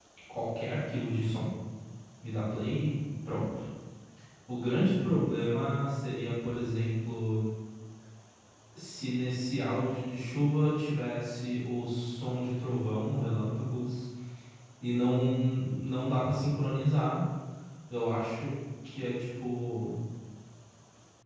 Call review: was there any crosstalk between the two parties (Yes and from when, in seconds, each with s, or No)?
No